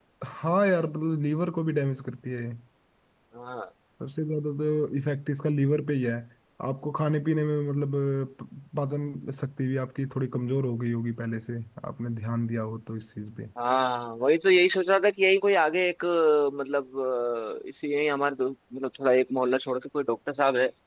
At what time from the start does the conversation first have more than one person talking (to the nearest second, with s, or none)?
none